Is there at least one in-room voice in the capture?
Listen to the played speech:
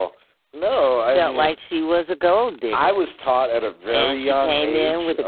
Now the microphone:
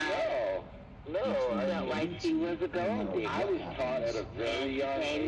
Yes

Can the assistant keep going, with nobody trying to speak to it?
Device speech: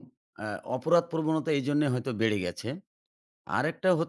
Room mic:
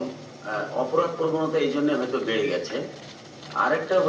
Yes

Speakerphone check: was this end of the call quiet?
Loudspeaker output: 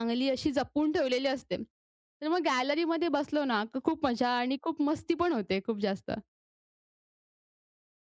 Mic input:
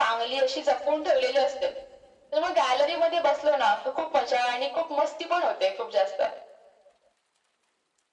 Yes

